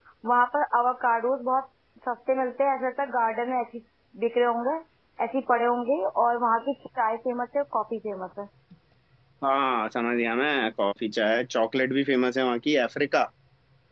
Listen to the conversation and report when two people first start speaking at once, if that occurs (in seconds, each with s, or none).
none